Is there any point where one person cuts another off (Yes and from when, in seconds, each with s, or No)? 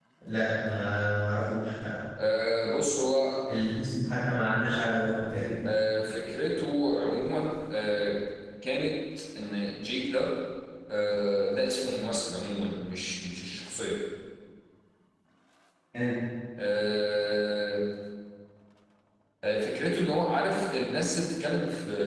No